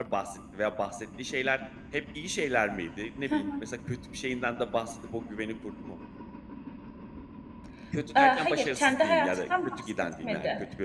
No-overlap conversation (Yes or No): No